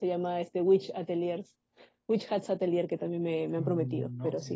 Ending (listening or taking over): taking over